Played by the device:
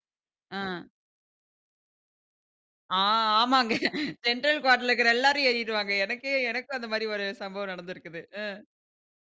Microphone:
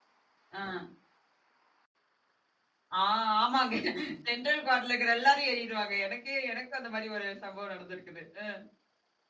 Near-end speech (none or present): none